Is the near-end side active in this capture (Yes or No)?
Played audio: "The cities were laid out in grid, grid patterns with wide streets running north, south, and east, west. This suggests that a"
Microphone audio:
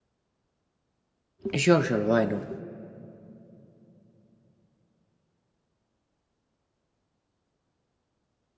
Yes